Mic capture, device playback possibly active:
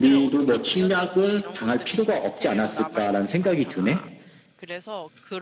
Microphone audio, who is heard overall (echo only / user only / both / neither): both